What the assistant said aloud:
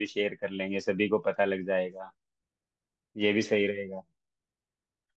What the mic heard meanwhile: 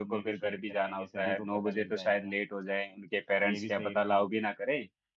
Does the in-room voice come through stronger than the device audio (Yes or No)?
Yes